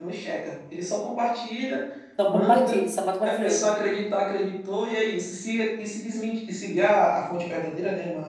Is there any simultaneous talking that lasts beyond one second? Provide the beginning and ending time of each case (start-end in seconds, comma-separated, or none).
none